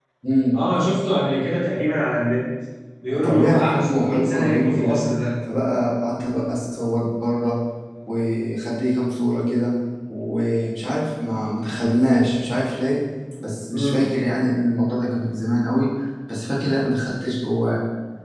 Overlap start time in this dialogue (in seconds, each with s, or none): 3.2 s